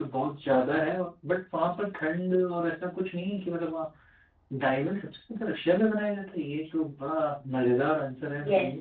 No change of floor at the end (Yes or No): No